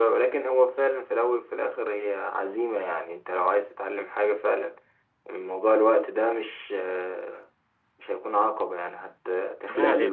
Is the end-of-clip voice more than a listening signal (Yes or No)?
No